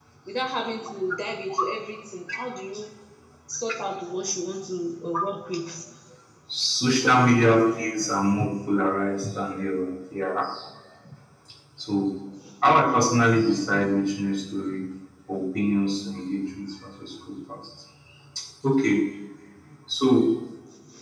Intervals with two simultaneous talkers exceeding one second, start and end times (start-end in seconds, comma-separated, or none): none